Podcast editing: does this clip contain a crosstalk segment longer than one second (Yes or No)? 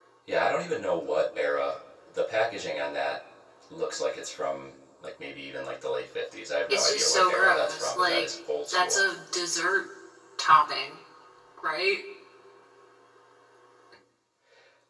Yes